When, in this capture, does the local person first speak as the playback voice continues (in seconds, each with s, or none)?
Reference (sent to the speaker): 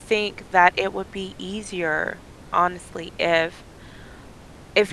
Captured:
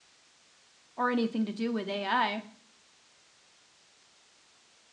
1.0 s